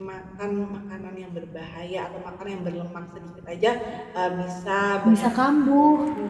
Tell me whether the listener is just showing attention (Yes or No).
Yes